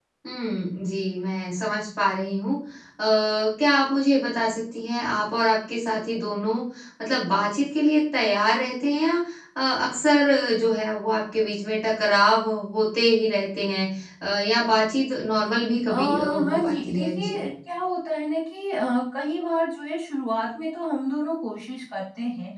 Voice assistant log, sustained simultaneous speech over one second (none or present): present